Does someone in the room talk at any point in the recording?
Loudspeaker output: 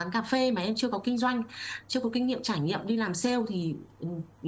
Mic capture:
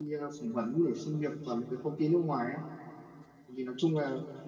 Yes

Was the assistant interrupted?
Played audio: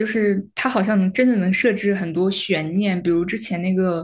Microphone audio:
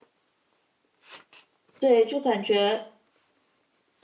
Yes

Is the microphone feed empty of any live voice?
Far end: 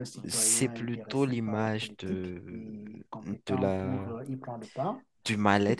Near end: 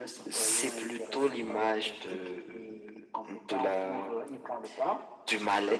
Yes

